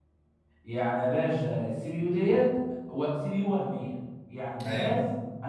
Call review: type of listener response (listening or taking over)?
listening